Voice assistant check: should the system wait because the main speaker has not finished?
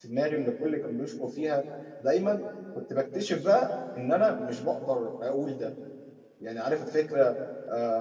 Yes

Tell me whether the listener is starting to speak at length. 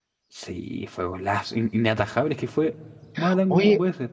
Yes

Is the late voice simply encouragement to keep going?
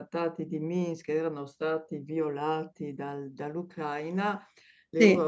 Yes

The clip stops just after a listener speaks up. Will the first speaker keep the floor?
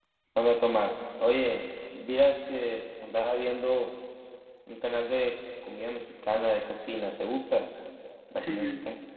No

